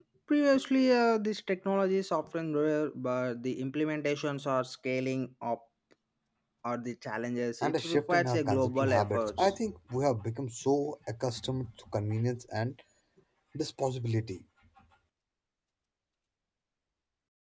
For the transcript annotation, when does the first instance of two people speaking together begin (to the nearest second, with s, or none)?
8 s